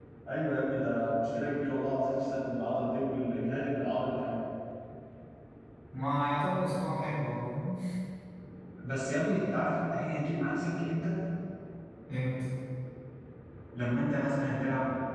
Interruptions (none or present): none